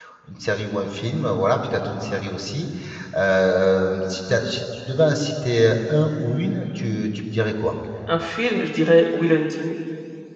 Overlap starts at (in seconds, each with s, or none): none